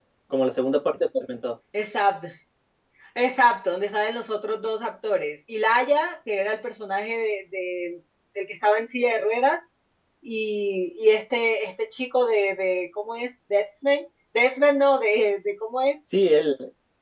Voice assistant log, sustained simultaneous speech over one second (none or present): none